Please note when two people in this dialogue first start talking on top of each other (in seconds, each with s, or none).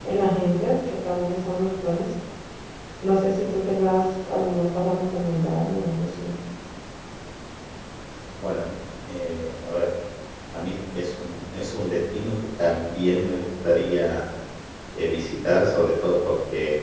none